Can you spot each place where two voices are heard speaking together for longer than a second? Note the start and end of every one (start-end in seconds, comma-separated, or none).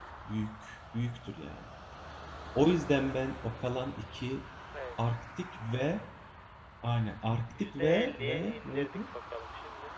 7.5-9.0